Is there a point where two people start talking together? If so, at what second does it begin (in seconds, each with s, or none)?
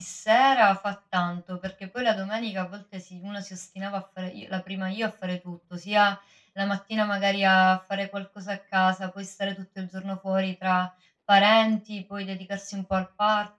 none